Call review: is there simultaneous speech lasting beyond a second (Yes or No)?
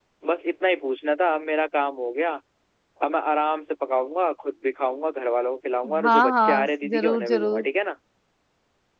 Yes